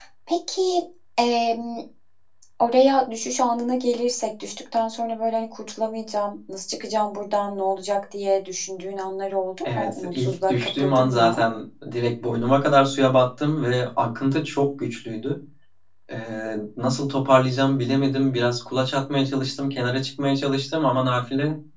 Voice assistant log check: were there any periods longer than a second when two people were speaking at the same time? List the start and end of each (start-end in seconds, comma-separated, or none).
9.6-11.4